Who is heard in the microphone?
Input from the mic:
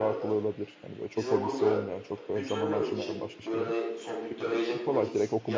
both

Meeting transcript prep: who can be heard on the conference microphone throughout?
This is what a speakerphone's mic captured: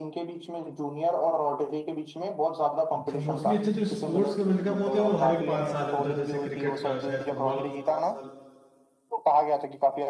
both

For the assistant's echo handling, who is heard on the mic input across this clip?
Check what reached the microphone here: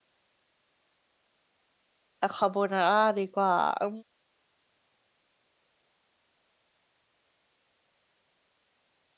user only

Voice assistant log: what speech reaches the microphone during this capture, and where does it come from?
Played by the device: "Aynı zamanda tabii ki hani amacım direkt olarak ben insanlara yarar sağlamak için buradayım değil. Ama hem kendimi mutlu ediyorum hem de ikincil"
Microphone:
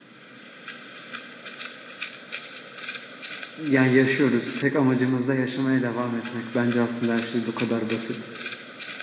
user only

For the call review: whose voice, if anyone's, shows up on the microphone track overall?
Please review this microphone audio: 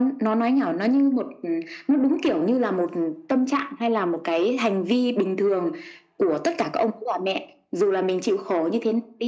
echo only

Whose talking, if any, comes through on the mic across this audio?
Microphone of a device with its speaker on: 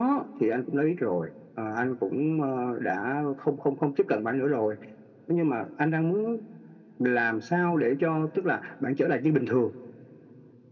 echo only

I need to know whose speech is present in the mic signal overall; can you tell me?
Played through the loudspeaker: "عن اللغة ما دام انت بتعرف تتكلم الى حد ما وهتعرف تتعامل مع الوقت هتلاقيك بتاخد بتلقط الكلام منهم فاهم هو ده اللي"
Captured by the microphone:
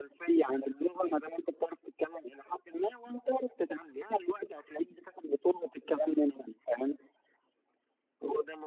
echo only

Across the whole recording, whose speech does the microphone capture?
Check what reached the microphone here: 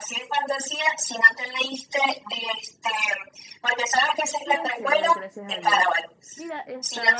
both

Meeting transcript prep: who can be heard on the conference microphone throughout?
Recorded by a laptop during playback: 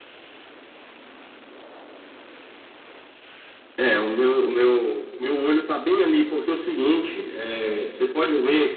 echo only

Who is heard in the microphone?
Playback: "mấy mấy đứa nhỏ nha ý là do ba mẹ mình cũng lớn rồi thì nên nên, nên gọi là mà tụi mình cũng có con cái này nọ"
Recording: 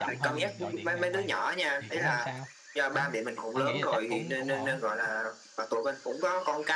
both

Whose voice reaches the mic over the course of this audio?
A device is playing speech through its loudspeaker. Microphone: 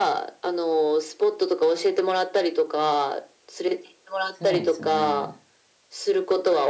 both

